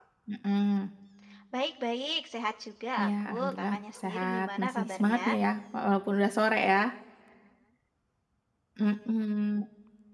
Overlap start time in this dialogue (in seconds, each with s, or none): 3.0 s